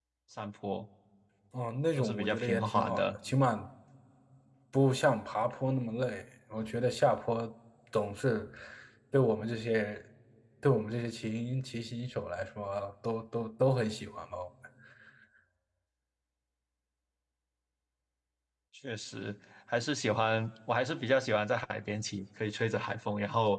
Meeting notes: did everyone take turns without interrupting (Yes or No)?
No